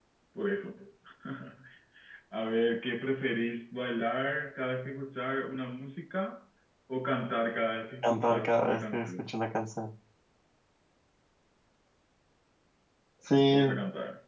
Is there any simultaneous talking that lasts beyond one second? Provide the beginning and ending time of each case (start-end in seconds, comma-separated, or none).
8.0-9.3